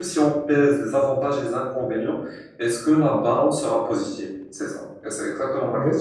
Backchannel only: No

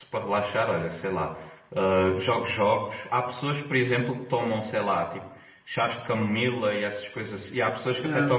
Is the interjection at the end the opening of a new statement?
No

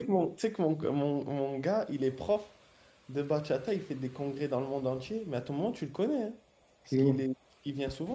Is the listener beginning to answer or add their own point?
No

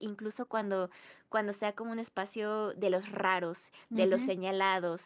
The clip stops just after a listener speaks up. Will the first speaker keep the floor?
Yes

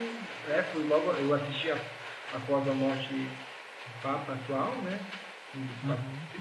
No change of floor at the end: Yes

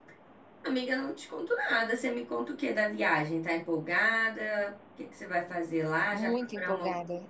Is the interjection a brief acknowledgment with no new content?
No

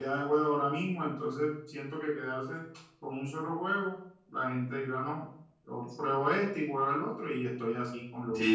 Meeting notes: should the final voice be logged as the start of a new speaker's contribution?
Yes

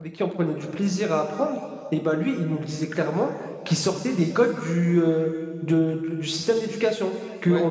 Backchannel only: Yes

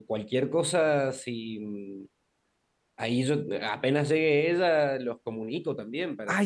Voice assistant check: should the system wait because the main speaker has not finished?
No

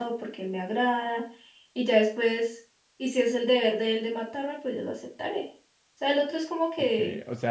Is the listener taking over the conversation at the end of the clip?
Yes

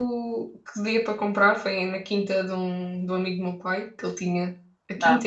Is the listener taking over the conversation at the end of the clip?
No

